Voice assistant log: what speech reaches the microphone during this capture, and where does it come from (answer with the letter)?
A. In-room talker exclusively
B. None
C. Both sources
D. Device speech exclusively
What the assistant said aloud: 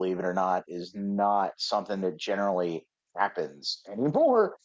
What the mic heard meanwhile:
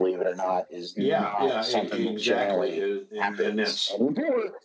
C